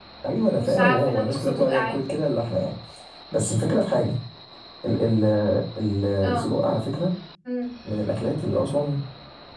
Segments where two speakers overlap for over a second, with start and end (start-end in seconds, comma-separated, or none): 0.5-2.0